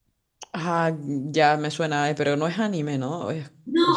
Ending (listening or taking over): taking over